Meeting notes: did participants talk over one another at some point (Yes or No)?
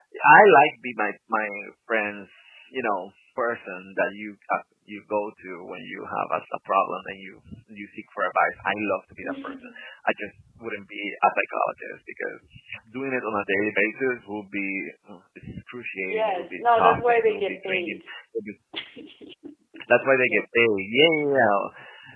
Yes